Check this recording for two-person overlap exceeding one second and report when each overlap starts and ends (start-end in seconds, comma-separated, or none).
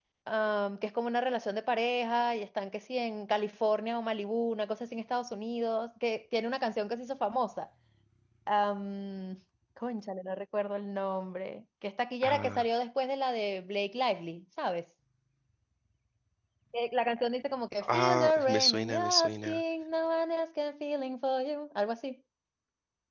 17.8-19.6